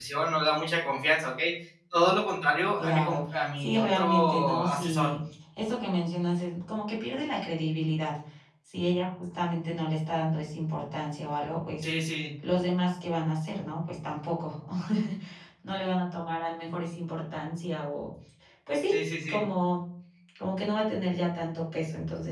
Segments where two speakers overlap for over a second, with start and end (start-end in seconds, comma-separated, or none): 2.8-5.1